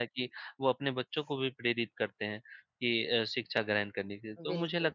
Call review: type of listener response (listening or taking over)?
listening